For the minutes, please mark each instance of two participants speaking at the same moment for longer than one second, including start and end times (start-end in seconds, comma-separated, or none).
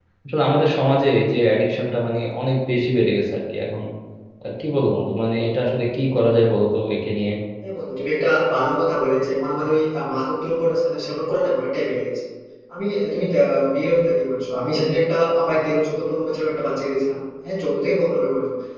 none